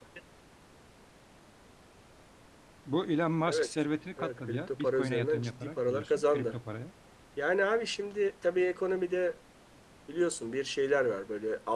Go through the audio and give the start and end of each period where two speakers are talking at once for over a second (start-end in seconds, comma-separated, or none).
4.2-6.6